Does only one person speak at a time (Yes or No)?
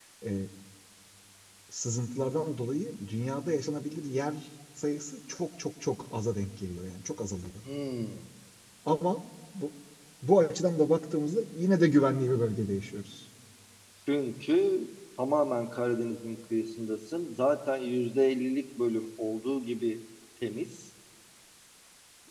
Yes